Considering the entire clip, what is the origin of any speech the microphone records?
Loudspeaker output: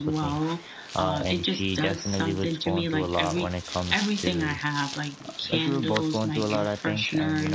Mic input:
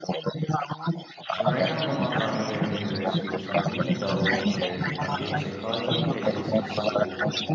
both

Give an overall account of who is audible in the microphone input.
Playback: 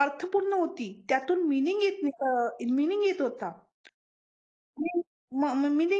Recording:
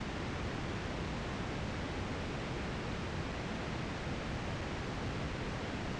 neither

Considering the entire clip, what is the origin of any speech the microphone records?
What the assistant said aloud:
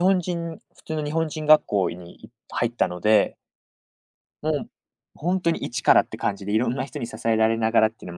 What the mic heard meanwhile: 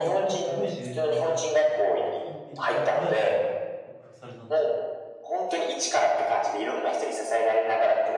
both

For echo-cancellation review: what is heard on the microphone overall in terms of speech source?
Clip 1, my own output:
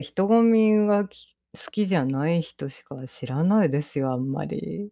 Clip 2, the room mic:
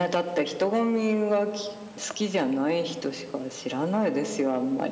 echo only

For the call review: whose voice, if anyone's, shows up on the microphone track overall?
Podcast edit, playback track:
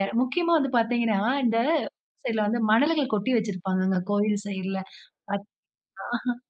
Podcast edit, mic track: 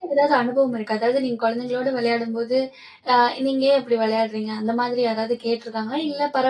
user only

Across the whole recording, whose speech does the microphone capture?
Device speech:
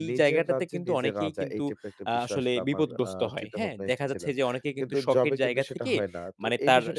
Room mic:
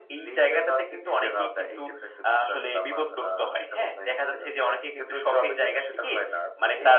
echo only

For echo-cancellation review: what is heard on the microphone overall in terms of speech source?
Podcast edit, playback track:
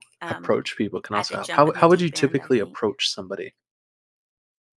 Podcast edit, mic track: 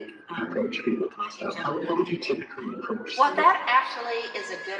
both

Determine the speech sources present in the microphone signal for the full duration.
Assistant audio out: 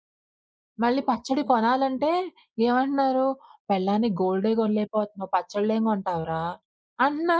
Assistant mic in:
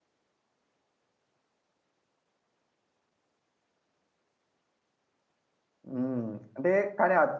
user only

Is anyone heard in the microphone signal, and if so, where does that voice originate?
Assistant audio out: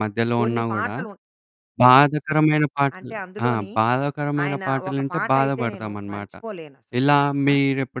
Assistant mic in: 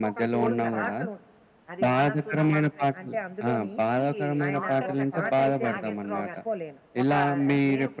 both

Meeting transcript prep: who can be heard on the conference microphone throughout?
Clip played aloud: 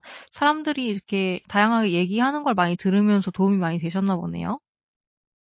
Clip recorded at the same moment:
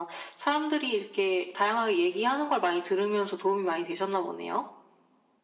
echo only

